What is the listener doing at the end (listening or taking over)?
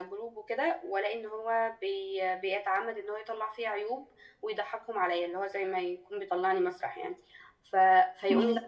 listening